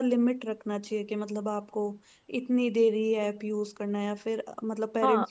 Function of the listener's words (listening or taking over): taking over